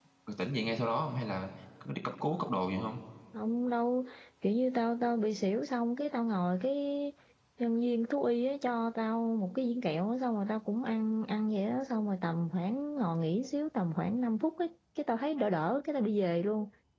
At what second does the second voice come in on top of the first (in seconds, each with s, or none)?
none